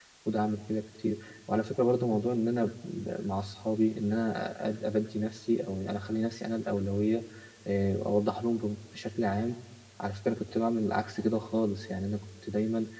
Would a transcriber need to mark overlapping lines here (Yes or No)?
No